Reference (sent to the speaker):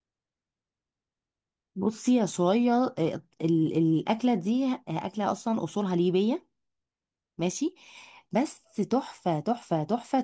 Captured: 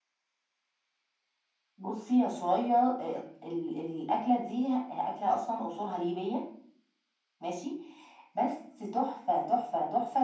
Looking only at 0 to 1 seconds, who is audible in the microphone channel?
neither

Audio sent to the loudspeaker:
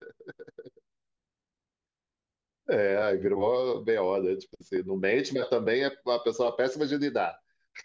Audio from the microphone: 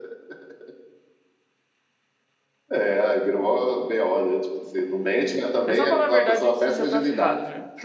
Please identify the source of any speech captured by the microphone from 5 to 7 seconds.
both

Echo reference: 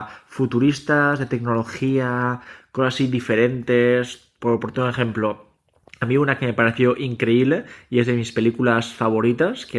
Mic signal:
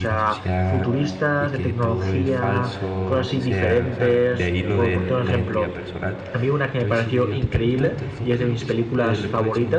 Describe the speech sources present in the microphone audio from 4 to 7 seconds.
both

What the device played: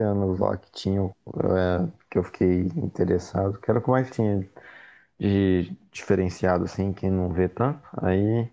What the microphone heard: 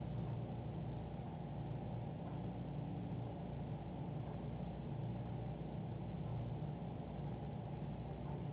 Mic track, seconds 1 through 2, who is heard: neither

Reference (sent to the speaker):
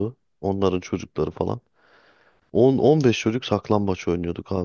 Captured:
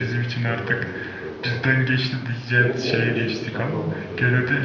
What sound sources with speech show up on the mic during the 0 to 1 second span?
both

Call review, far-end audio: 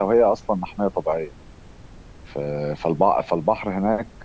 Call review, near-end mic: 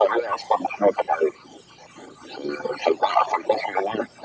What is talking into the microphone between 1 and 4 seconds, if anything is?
echo only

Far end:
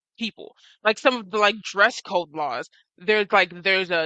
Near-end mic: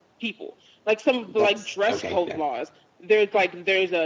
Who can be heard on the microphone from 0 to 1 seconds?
echo only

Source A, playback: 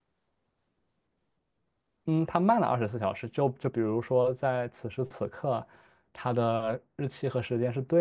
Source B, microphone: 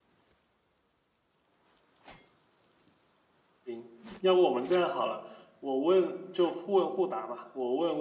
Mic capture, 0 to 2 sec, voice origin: neither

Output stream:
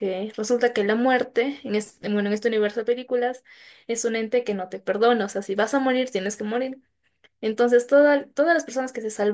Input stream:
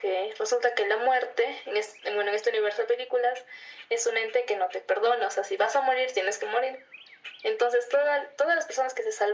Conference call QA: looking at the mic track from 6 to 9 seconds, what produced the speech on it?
echo only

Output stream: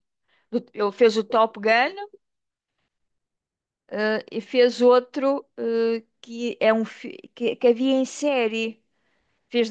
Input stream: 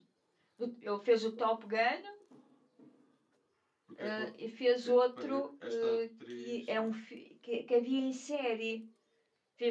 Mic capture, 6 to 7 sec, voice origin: both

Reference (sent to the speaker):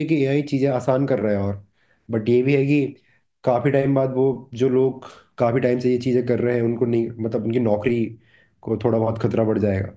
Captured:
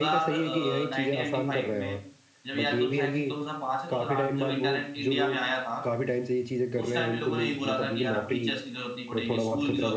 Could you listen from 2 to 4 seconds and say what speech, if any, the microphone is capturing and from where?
both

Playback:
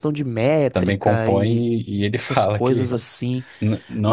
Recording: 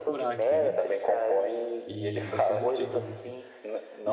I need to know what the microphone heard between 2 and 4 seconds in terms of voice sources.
both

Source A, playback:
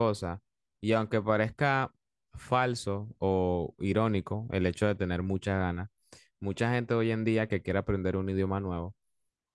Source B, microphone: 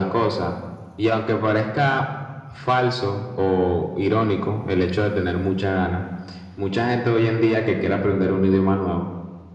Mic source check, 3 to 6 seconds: echo only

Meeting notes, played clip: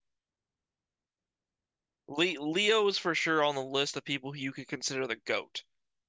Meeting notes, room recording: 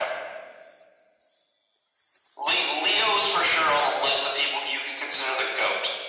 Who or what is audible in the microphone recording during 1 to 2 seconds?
neither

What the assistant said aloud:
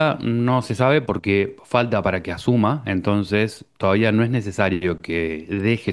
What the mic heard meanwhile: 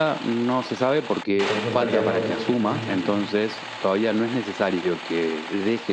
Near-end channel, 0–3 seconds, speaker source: both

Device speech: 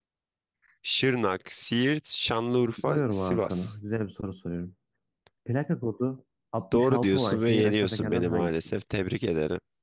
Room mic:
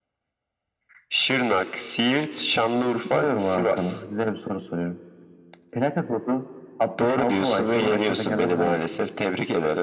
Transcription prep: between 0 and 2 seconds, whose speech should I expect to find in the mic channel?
echo only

